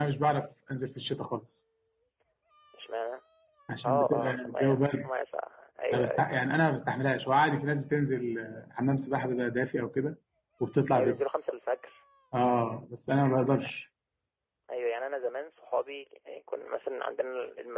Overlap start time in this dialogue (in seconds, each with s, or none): 3.8 s